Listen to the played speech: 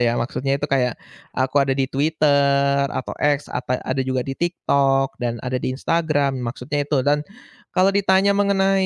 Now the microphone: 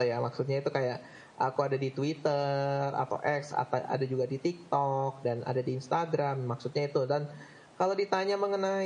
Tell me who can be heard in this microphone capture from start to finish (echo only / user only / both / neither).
echo only